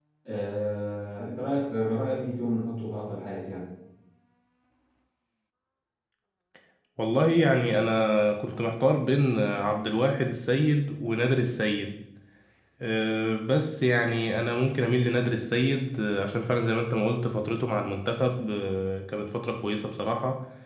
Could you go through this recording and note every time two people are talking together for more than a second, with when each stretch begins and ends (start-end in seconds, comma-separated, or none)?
none